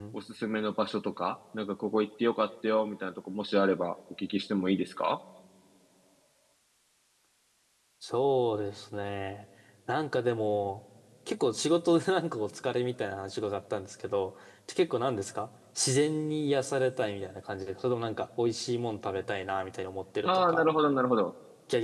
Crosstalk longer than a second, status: none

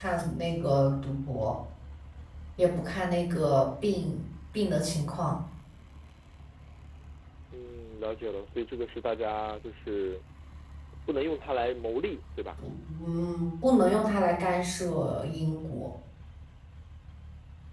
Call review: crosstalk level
none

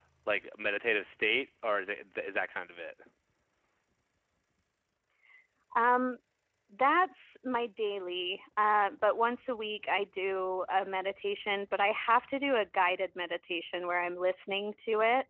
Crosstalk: none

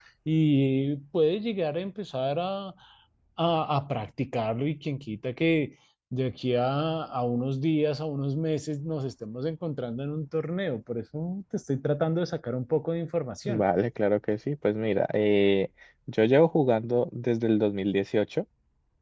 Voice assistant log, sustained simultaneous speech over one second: none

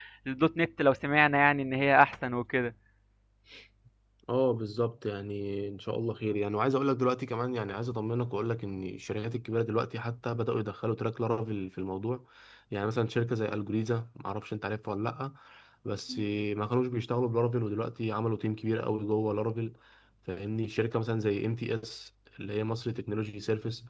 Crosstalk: none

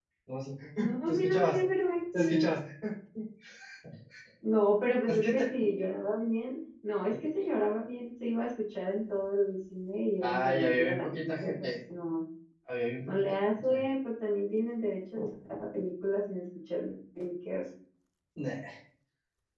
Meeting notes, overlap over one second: present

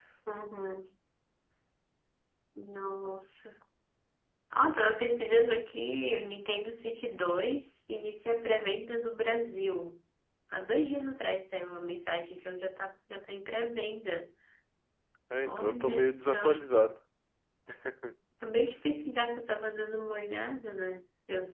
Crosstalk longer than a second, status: present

